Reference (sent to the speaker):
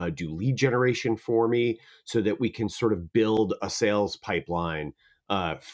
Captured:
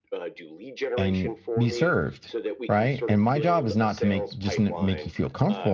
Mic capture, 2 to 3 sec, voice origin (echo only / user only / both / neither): both